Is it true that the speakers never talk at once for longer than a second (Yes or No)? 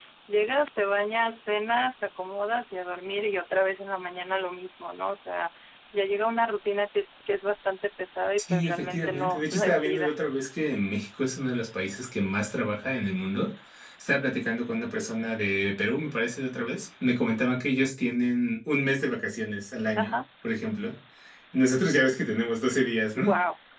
No